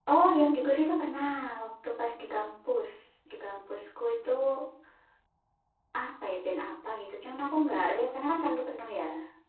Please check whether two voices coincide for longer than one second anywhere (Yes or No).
No